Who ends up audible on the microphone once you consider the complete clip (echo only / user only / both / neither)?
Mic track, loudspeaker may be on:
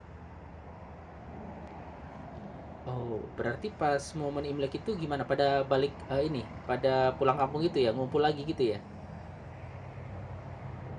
user only